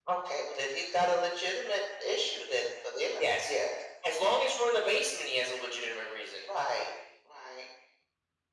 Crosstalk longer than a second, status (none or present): none